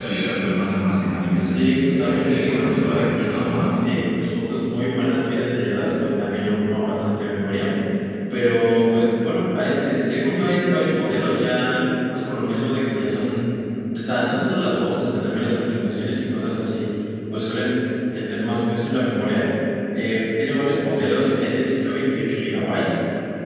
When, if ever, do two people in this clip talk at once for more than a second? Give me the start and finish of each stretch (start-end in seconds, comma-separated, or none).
1.5-3.8